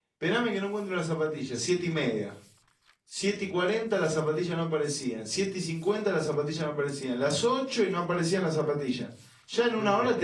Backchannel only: Yes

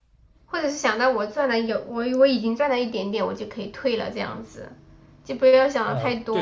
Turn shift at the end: Yes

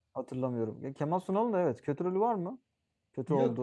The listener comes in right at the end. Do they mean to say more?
Yes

